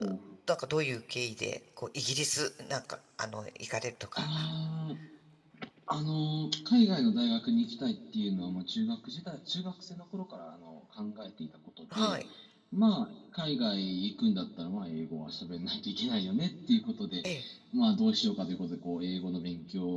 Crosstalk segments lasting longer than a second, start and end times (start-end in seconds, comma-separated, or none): none